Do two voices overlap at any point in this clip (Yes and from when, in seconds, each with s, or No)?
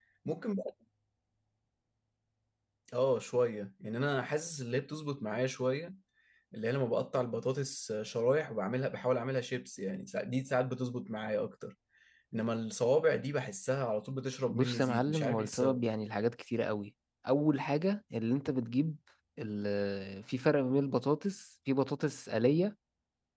Yes, from 14.5 s